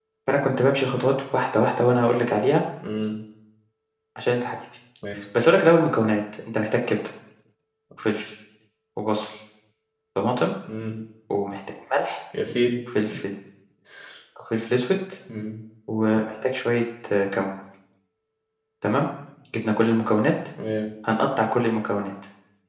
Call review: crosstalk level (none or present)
none